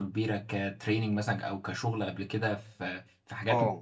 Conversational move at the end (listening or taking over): taking over